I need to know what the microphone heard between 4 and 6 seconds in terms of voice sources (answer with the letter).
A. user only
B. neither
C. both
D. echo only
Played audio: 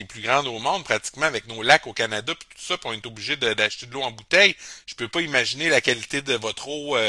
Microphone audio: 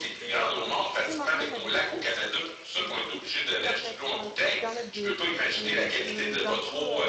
C